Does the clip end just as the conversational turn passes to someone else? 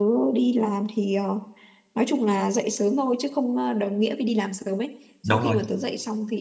No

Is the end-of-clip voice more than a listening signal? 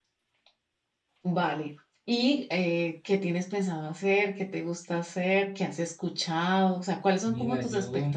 No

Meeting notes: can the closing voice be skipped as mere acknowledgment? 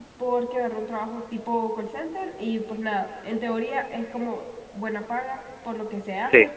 Yes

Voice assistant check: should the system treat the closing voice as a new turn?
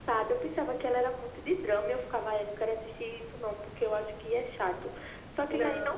No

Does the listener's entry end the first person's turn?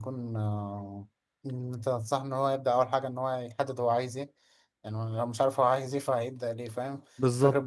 No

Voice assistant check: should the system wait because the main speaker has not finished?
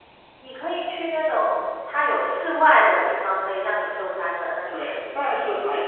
No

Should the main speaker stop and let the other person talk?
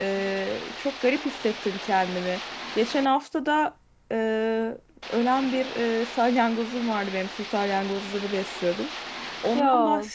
No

